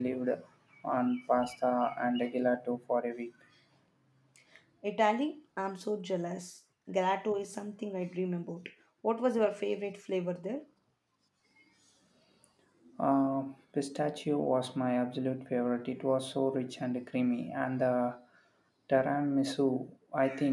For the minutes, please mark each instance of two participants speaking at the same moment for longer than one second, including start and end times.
none

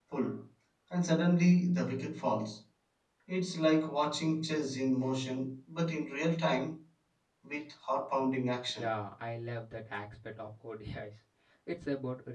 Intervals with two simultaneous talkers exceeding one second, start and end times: none

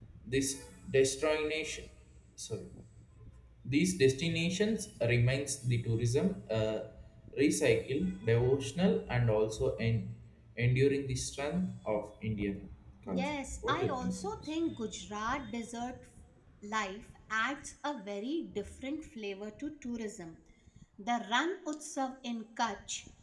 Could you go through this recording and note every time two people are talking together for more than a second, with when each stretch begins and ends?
13.2-14.5

